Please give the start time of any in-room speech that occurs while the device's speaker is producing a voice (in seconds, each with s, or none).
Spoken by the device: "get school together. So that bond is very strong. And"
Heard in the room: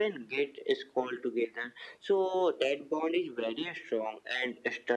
none